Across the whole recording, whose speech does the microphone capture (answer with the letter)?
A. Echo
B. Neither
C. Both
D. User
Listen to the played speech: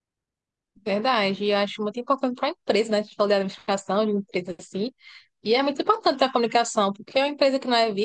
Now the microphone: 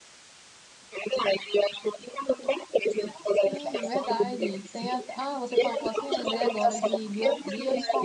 C